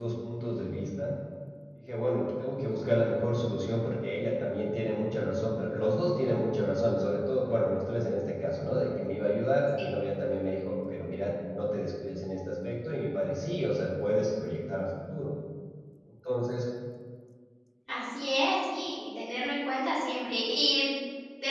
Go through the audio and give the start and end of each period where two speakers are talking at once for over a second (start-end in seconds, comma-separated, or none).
none